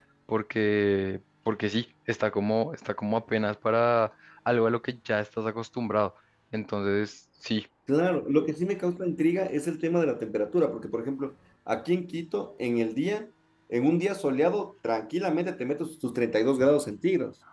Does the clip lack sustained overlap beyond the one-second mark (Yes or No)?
Yes